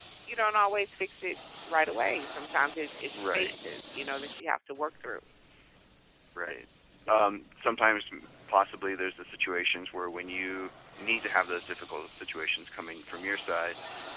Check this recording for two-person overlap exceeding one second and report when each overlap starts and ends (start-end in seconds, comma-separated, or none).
none